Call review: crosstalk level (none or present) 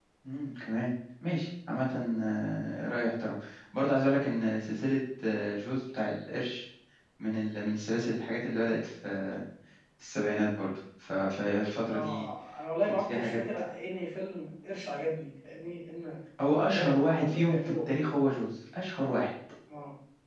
present